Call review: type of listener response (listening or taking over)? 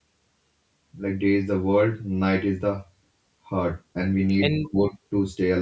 listening